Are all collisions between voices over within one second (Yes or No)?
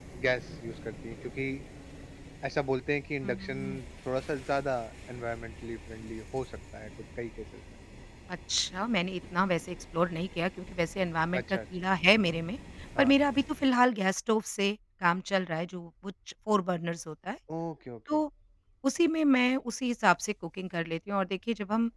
Yes